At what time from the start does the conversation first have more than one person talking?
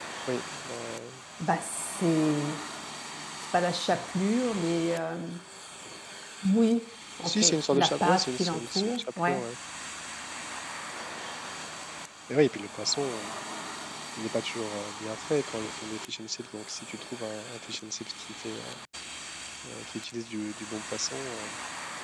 7.2 s

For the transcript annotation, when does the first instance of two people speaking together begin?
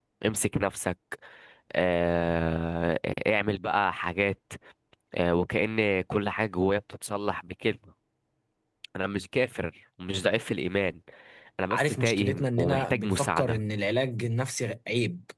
11.7 s

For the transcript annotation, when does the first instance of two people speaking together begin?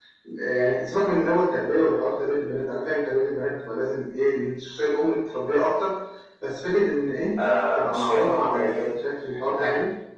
7.4 s

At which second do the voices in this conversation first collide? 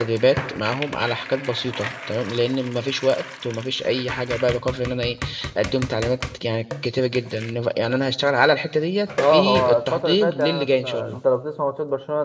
9.2 s

